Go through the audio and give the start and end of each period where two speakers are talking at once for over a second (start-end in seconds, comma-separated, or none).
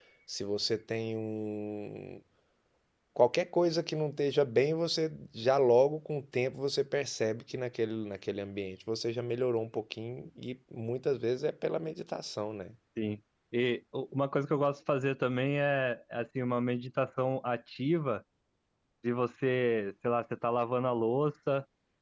none